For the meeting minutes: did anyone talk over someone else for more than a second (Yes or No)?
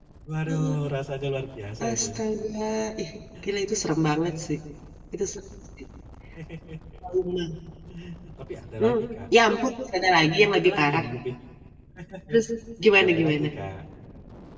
No